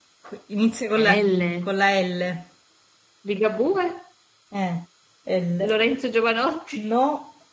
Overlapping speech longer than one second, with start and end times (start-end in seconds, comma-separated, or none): none